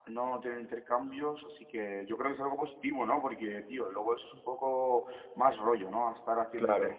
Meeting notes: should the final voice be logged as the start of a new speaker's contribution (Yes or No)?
No